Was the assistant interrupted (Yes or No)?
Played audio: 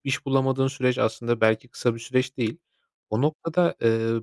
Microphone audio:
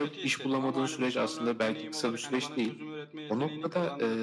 Yes